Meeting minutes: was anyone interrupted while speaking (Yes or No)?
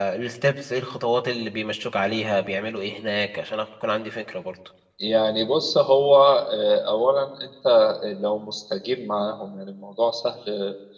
No